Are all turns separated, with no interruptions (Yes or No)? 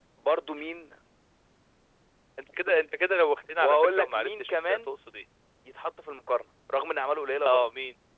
No